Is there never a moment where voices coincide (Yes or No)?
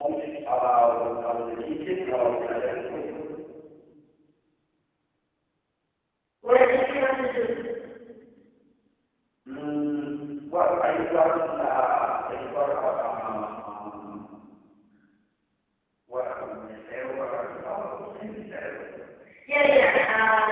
Yes